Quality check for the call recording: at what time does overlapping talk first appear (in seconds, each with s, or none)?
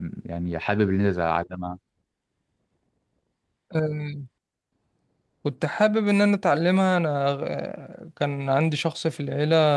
none